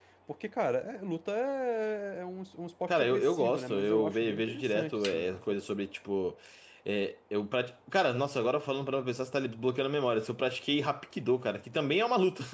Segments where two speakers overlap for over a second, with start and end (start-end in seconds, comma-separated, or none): 2.9-5.4